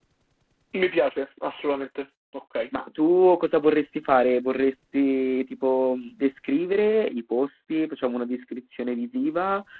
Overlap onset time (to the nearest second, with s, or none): none